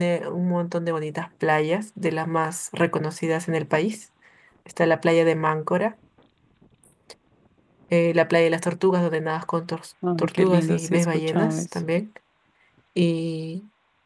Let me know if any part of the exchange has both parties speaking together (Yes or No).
Yes